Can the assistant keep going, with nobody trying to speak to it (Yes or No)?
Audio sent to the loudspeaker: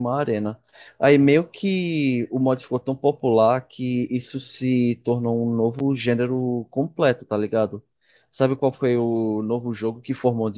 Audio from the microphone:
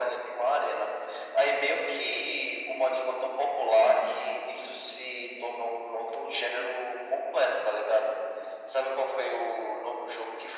Yes